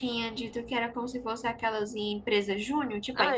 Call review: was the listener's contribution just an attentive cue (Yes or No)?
No